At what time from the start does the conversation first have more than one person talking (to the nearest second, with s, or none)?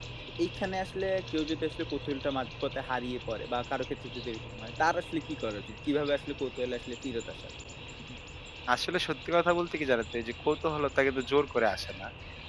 none